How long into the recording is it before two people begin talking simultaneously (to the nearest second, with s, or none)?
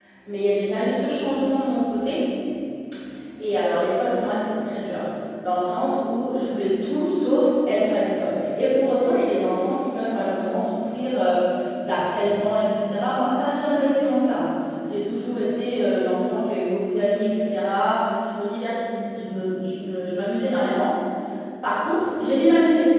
none